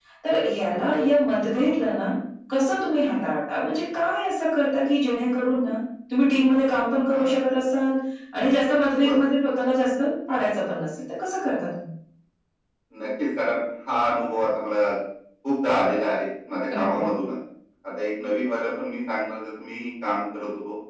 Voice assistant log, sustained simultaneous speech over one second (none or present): none